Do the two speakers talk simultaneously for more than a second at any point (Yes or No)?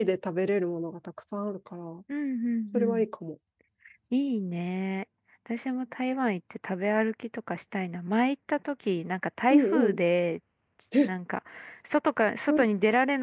No